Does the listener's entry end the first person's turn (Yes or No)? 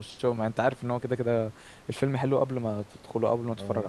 Yes